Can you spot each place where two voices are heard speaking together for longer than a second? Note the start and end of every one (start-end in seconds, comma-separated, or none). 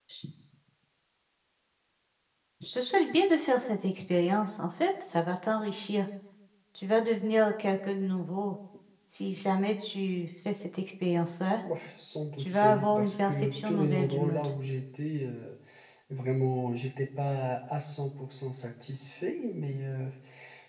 12.4-14.5